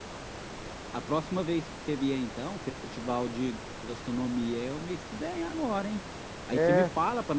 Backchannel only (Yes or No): Yes